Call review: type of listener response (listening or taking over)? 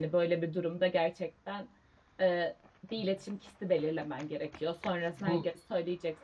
listening